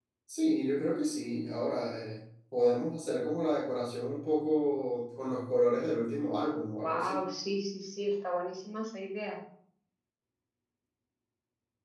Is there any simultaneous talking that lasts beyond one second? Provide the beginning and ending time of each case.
none

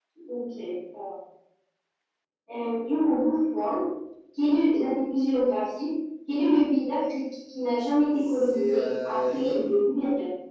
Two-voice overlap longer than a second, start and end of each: 8.1-9.7

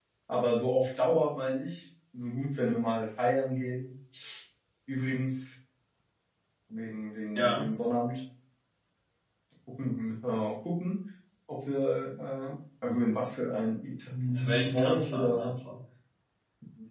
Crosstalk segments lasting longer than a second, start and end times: 14.4-15.6

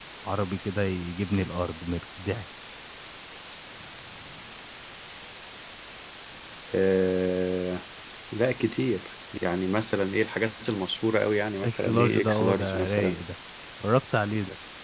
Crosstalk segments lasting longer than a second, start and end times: 11.6-13.2

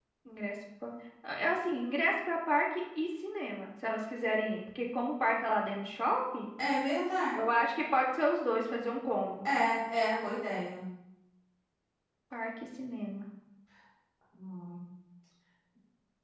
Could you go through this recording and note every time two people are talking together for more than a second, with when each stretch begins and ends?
none

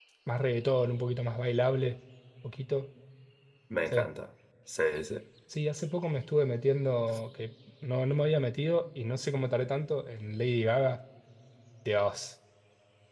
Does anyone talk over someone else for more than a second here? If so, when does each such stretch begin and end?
none

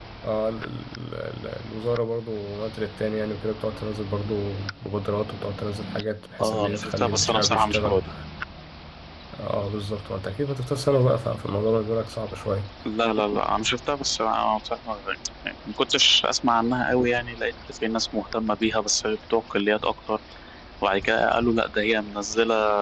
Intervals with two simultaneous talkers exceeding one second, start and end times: 6.4-8.0

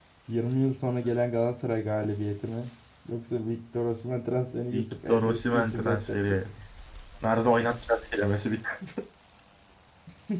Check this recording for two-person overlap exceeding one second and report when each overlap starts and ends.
4.7-6.4

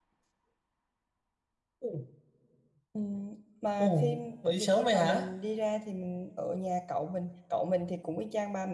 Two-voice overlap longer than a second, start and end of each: 3.8-5.3

